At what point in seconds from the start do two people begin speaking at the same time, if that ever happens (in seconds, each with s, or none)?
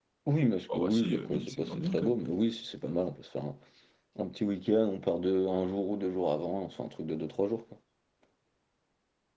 0.7 s